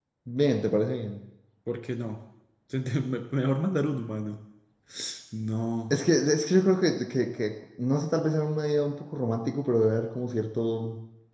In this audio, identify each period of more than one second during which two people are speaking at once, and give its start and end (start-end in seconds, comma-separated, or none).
none